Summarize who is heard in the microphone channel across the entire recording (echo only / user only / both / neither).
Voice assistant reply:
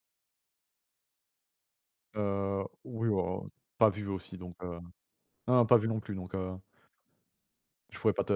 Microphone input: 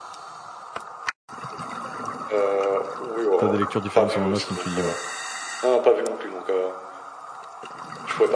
both